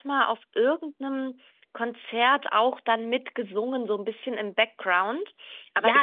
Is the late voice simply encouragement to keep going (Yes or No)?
No